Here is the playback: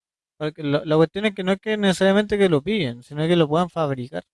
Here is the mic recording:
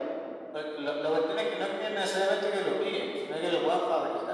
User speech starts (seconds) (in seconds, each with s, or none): none